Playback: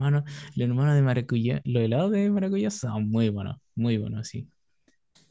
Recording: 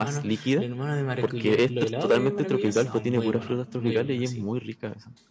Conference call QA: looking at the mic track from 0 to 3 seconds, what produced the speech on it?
both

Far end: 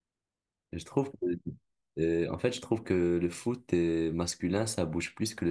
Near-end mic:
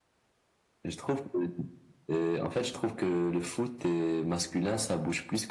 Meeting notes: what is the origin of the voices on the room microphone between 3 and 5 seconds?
echo only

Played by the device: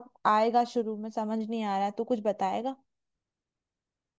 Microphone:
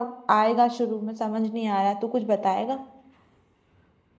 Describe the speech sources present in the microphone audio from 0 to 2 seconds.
echo only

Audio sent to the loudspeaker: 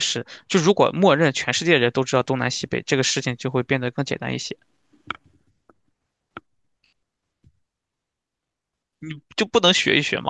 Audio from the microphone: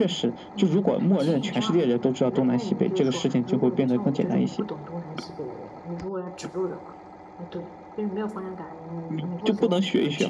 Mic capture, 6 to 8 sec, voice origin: user only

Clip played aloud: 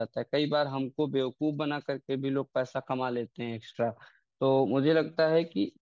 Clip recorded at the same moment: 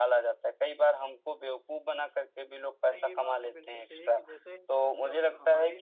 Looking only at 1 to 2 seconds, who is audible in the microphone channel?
echo only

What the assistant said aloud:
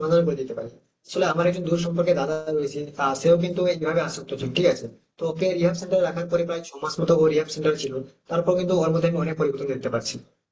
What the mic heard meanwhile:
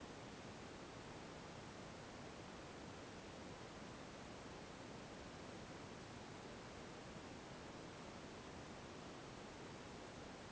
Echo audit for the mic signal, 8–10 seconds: neither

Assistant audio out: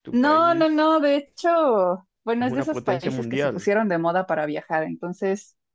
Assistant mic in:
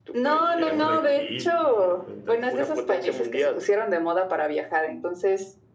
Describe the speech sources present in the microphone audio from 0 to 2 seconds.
both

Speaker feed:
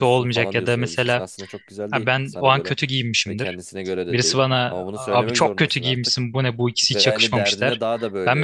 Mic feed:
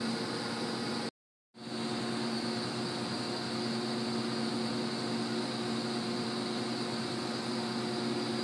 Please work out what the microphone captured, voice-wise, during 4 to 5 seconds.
neither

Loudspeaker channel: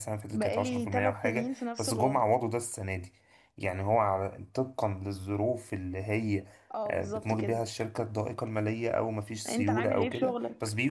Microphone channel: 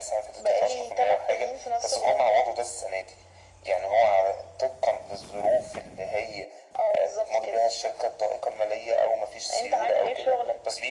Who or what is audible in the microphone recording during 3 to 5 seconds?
echo only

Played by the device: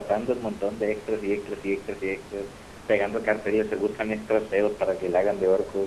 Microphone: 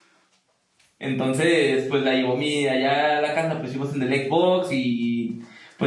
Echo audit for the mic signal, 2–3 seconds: user only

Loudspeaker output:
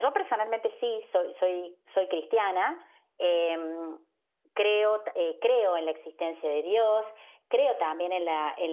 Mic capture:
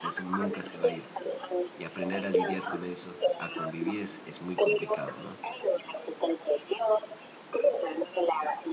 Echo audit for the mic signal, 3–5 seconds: both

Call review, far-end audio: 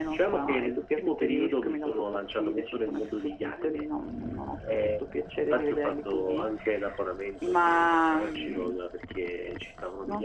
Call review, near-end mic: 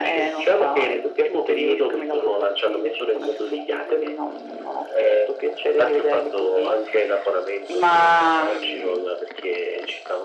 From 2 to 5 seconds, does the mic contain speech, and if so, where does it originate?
echo only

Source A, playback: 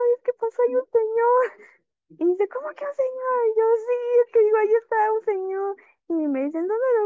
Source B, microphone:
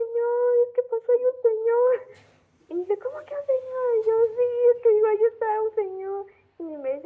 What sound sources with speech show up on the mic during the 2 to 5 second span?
echo only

